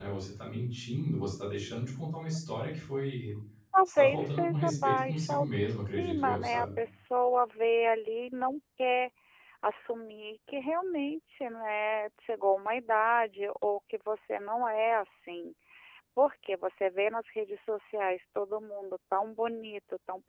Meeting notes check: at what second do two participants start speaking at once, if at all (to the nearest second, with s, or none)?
4 s